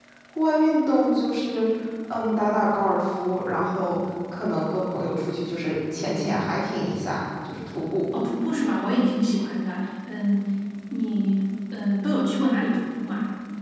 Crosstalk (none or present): none